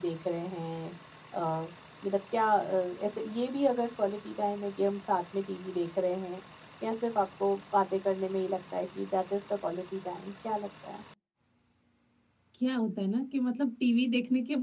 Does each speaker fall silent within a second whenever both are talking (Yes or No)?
Yes